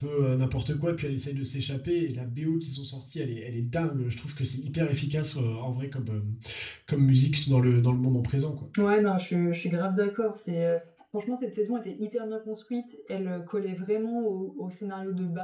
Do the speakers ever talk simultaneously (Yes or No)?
No